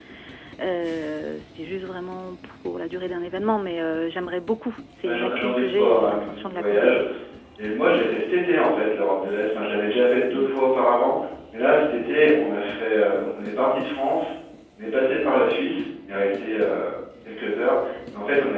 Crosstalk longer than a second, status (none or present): present